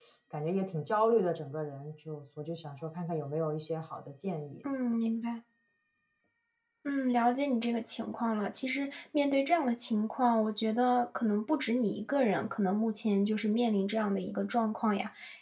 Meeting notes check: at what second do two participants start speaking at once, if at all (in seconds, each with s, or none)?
none